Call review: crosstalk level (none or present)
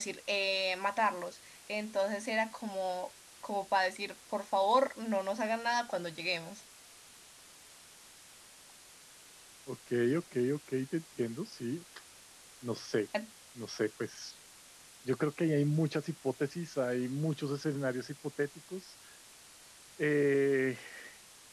none